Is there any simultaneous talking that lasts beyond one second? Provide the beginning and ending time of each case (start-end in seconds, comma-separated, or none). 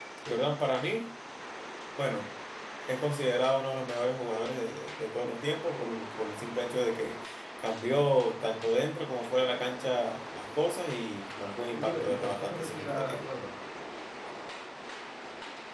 11.7-13.2